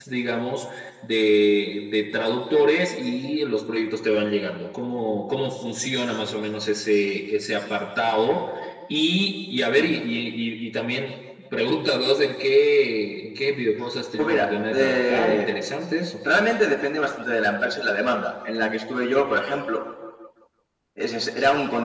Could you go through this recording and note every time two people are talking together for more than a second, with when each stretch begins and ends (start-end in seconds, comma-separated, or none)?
14.2-15.5